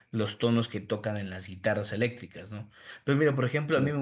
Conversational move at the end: listening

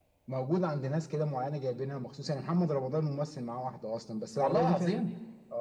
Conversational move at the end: listening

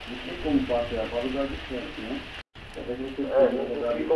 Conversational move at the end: taking over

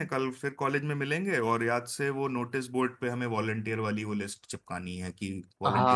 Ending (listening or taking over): taking over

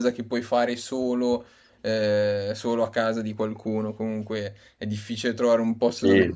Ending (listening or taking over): listening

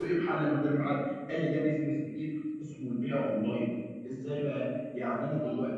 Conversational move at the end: listening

